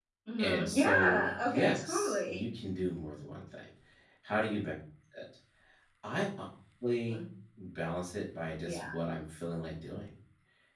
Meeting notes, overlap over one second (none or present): present